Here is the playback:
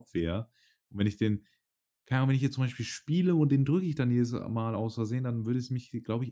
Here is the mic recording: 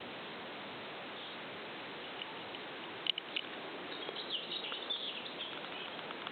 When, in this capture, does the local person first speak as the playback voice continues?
none

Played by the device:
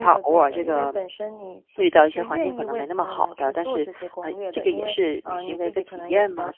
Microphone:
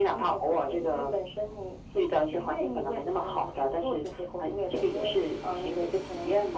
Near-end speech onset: none

